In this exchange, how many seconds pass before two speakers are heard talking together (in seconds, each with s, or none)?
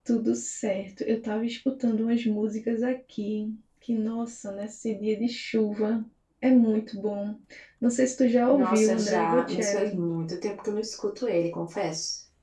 8.5 s